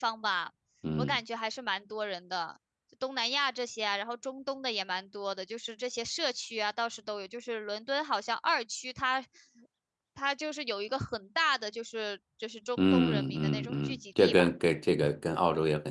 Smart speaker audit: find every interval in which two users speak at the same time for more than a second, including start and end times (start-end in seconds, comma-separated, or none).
12.8-14.5